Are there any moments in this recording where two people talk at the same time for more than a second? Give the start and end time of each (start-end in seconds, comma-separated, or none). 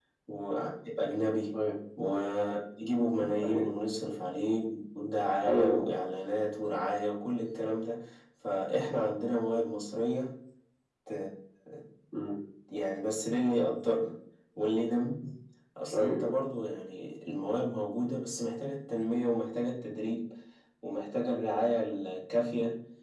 none